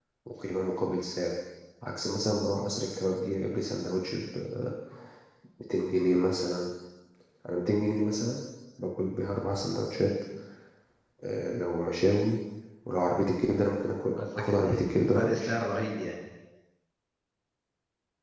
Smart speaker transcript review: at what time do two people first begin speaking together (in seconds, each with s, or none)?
14.2 s